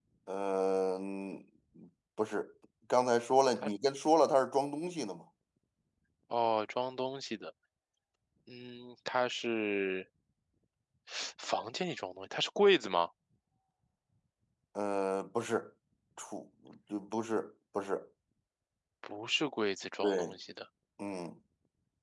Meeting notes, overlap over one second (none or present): none